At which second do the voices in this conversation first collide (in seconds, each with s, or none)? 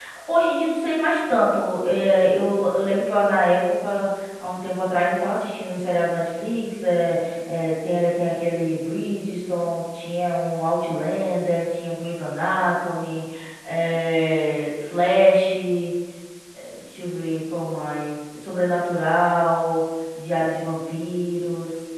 none